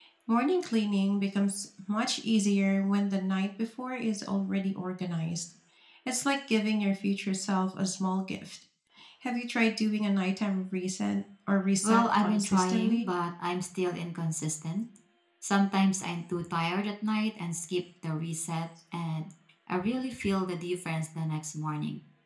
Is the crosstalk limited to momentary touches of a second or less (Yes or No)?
No